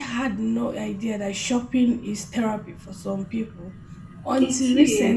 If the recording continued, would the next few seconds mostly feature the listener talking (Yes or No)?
No